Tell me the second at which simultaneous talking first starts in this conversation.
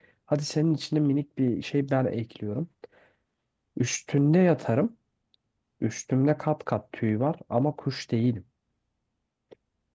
none

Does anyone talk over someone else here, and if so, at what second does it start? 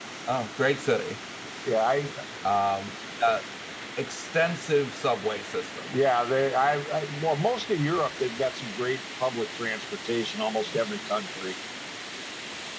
none

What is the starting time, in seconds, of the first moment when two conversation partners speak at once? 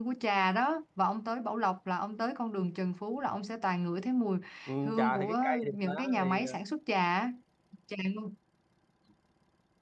5 s

